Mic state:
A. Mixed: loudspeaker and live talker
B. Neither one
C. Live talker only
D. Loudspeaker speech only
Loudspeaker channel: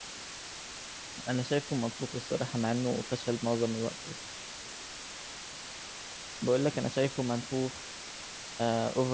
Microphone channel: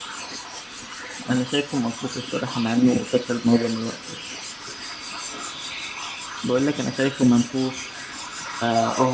D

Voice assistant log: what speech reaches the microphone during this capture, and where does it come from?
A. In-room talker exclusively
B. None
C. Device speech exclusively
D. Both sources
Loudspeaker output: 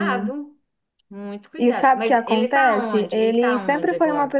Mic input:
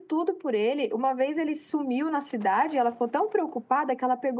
A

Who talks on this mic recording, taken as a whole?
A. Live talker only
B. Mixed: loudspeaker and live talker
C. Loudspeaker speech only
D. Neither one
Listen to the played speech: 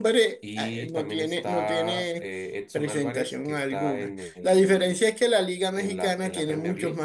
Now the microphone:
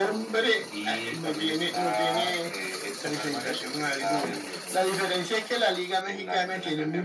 C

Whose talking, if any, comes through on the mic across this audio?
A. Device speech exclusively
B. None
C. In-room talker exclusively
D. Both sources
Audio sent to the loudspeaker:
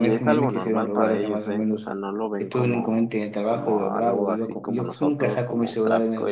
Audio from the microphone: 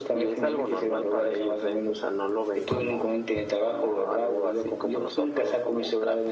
A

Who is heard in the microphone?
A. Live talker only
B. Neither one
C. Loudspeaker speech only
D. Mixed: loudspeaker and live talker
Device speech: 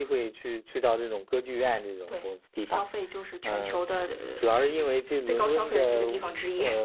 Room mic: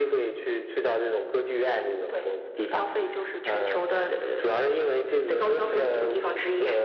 C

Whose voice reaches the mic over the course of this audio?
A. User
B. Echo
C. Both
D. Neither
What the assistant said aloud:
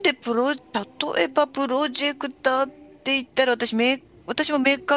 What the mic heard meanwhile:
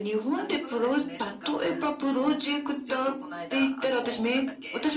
C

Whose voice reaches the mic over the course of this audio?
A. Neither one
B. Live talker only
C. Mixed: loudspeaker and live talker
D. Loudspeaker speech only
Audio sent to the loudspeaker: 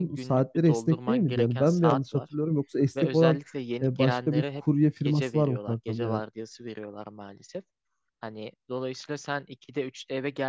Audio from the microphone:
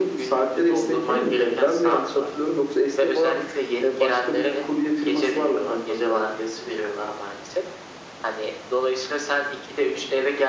D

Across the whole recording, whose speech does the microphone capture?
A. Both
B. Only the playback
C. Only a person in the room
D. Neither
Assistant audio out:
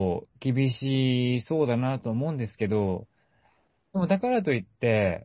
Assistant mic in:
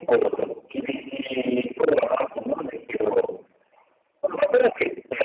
B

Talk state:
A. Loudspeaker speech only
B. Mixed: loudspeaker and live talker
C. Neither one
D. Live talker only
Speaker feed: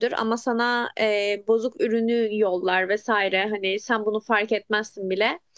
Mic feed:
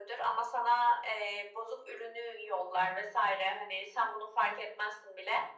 A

